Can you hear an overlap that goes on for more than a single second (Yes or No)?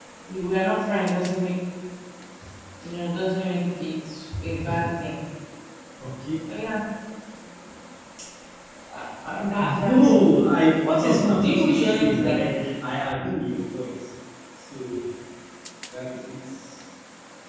Yes